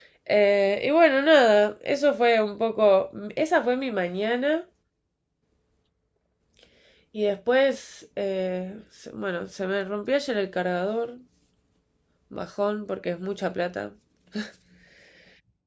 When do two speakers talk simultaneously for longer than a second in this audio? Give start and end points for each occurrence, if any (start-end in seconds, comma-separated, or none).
none